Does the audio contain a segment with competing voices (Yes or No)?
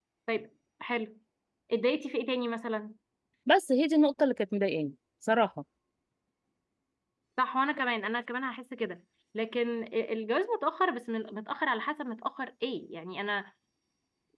No